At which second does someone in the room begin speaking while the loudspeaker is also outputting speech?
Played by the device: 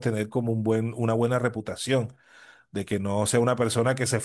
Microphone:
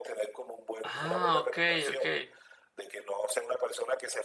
1 s

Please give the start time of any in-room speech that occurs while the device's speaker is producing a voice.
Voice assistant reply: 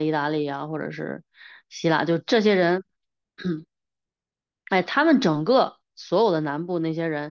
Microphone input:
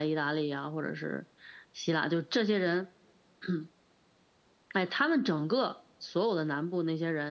none

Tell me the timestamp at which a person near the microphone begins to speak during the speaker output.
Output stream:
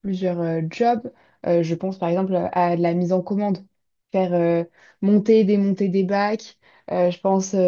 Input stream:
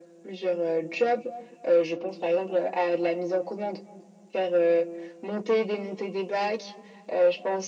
none

